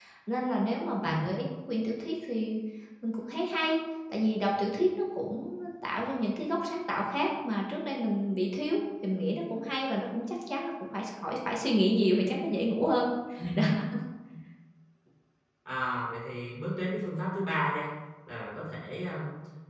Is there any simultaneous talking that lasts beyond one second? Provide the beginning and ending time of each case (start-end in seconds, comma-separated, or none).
none